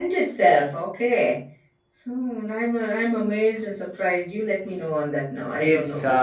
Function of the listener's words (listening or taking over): taking over